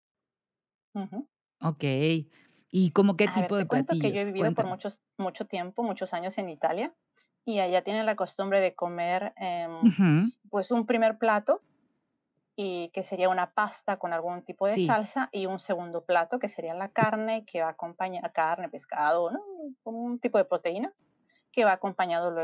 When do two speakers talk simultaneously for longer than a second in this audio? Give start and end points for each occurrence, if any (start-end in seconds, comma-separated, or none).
3.2-4.7